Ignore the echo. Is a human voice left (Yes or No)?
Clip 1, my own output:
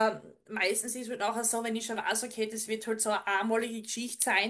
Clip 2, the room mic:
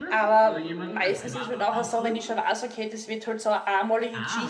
Yes